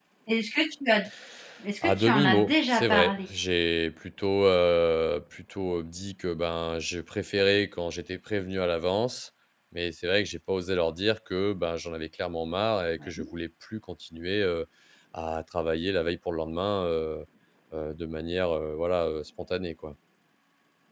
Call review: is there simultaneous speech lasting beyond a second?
Yes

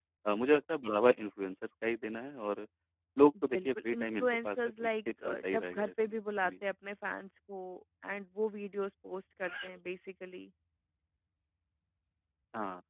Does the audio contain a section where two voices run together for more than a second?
Yes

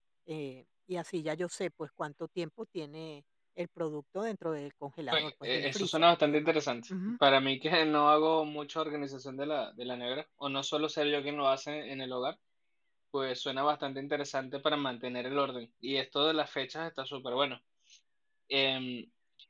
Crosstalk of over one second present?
Yes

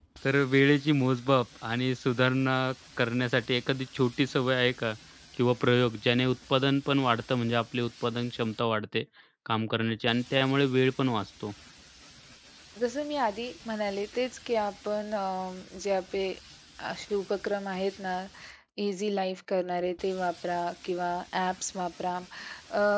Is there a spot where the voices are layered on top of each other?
No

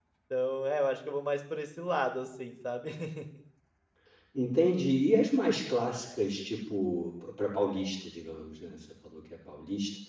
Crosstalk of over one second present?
No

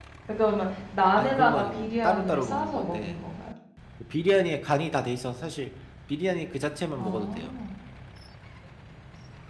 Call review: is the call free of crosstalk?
No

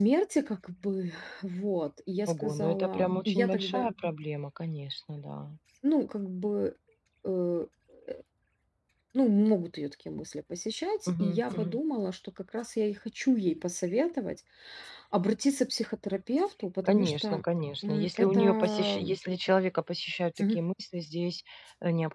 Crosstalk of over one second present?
Yes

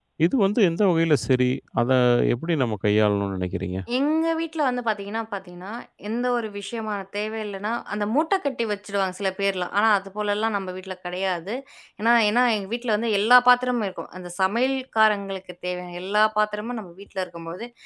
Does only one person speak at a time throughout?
Yes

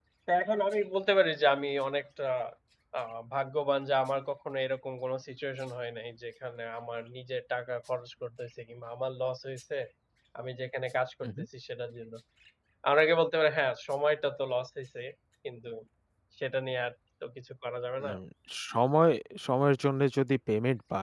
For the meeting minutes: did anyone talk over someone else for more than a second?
No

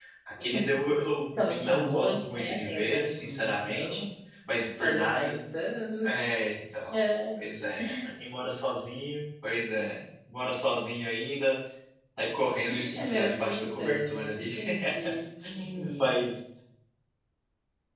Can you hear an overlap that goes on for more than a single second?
Yes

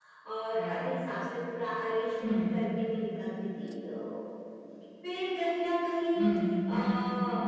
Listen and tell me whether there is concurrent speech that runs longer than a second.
No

